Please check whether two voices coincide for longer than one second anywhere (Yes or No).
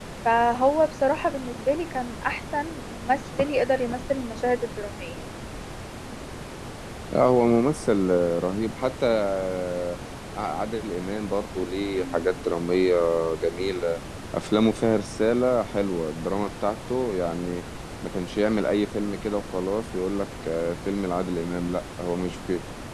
No